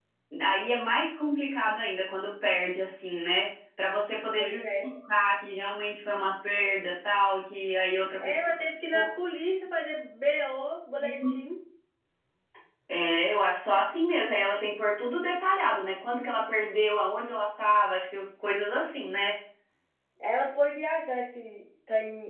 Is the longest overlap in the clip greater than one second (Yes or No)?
No